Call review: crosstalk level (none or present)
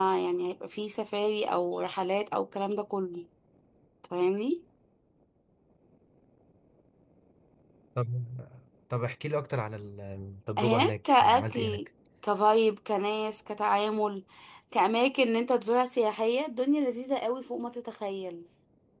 present